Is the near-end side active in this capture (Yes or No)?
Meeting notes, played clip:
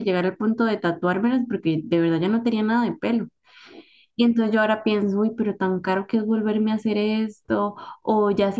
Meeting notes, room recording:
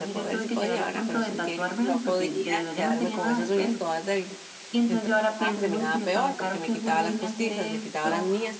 Yes